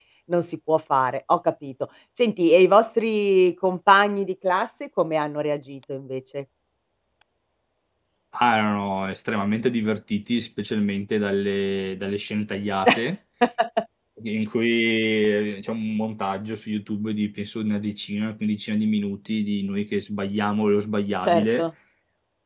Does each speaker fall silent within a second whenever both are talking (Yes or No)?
Yes